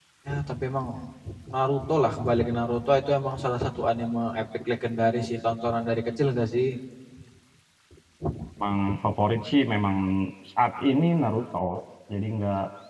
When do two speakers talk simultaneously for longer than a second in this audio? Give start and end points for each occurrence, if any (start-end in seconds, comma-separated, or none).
none